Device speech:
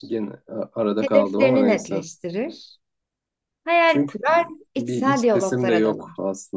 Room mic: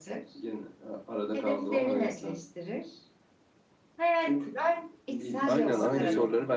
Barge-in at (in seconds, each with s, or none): 5.4 s